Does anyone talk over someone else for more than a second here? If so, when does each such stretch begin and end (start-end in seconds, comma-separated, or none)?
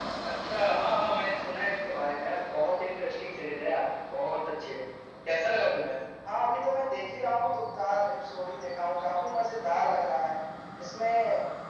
none